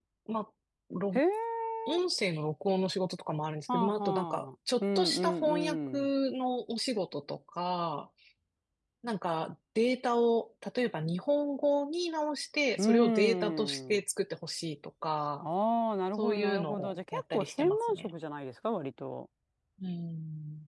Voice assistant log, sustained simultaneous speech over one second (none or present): present